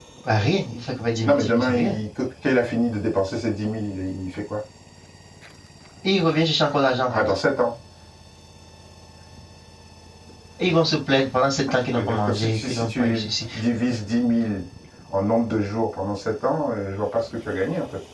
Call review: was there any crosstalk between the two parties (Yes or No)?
Yes